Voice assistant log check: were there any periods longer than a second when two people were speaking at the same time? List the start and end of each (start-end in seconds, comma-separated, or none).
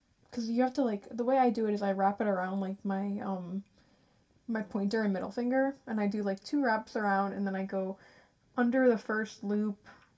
none